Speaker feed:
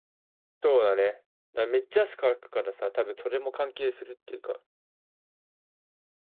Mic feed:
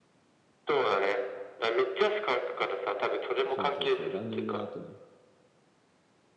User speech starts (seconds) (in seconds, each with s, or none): 3.5 s